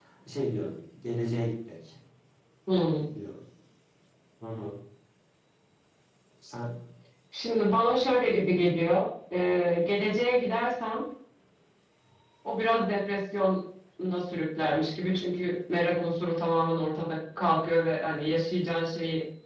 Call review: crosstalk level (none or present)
none